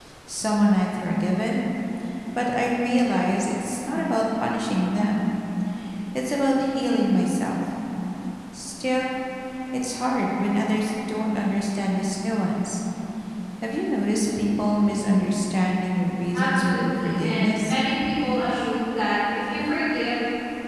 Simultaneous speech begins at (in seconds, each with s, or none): 16.3 s